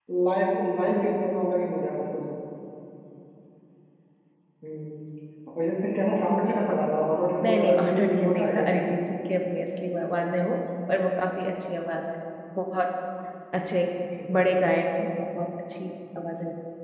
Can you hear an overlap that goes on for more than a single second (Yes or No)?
Yes